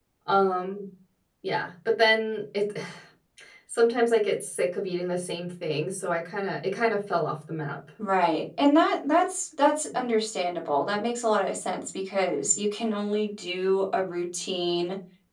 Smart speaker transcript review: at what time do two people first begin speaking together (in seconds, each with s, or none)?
none